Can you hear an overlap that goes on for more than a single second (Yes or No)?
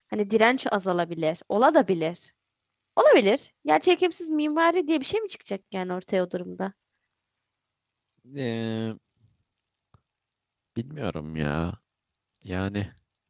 No